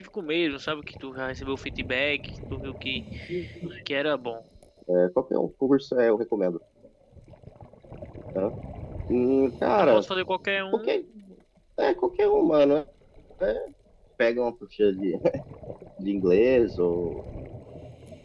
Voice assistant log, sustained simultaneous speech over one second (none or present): none